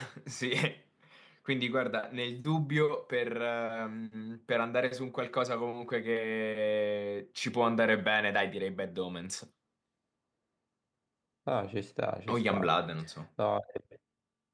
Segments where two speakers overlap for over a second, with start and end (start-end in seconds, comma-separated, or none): none